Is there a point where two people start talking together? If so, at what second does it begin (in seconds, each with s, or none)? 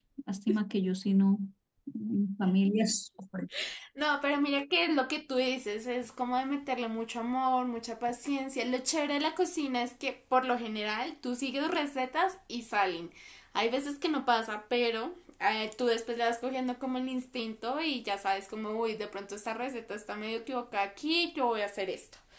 none